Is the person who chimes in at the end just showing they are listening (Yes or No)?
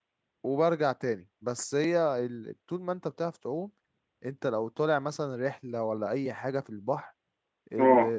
Yes